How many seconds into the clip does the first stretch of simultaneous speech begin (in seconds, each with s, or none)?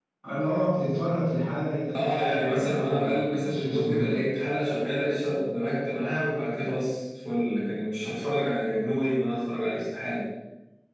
1.9 s